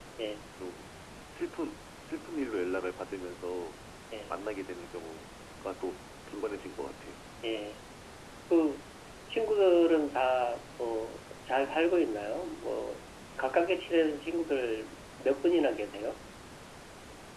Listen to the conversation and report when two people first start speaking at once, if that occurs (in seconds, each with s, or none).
none